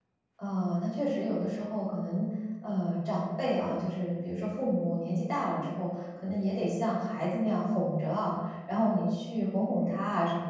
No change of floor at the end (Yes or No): Yes